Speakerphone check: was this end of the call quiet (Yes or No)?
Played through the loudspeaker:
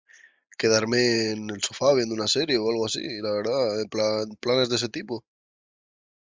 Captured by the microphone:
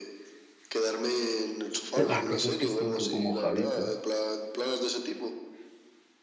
No